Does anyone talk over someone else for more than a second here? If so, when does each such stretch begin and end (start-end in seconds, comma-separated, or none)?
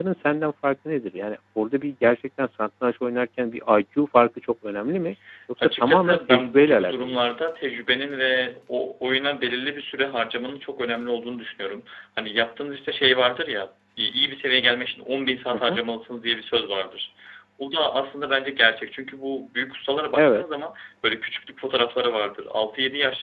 5.6-7.2